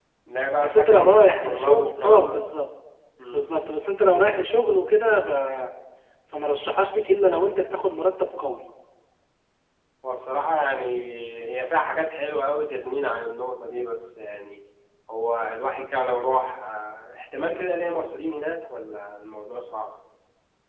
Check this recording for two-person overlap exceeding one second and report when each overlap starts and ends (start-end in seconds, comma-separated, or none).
0.6-2.4